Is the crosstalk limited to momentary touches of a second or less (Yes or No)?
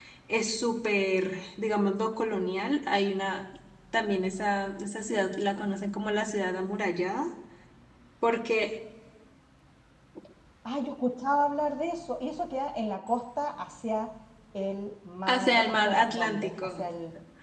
No